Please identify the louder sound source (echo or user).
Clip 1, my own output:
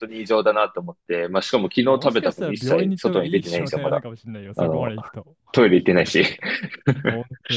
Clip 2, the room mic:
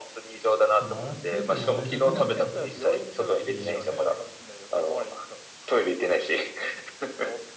echo